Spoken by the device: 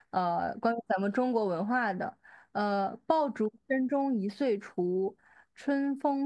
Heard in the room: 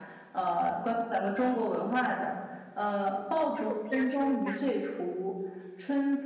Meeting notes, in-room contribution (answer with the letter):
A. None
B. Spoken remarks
B